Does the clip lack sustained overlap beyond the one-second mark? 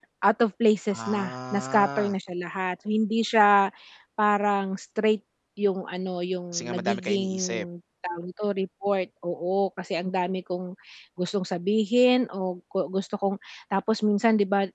No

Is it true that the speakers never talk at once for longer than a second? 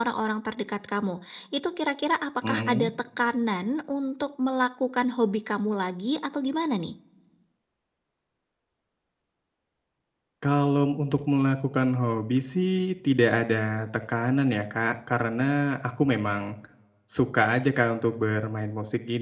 Yes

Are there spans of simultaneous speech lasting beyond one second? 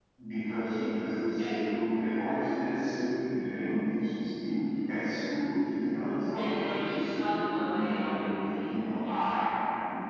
Yes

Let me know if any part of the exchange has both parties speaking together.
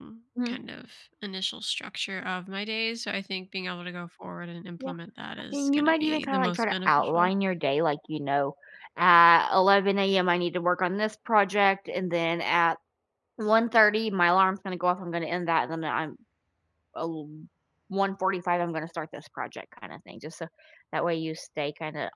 Yes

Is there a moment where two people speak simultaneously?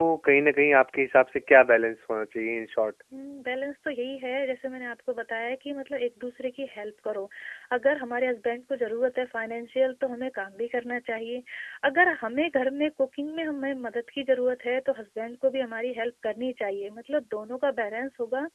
No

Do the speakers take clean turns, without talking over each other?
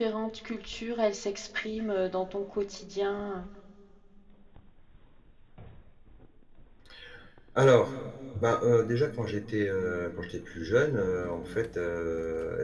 Yes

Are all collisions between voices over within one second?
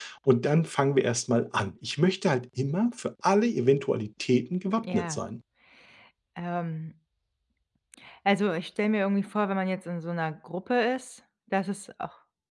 Yes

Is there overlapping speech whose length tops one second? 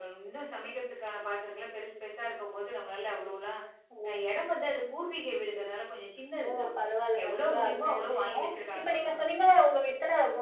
Yes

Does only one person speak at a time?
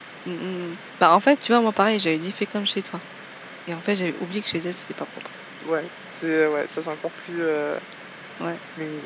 Yes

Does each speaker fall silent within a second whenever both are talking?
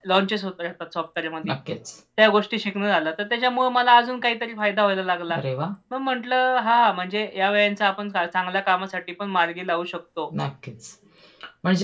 Yes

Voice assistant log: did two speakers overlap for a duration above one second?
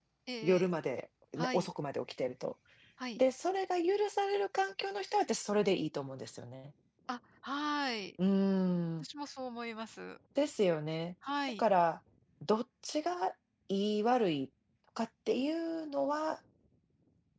No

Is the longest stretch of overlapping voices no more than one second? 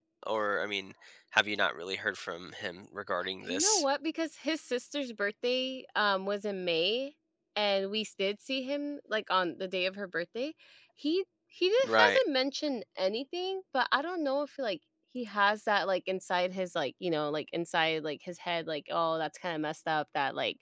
Yes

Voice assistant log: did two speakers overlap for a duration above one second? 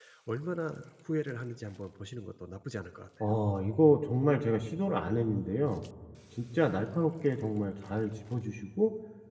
No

